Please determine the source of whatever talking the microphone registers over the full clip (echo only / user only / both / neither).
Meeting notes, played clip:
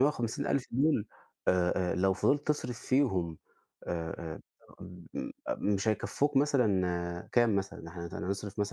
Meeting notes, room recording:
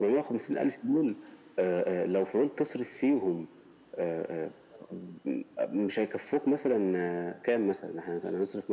echo only